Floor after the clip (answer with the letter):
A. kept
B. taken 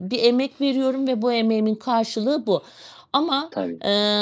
A